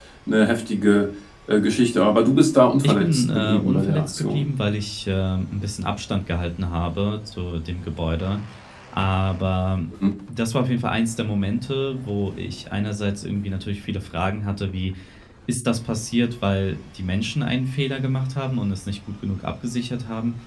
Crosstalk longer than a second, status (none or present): present